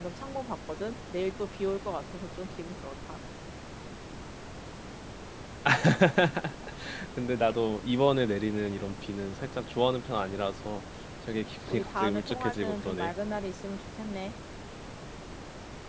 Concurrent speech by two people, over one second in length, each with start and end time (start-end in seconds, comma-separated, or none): 11.7-13.1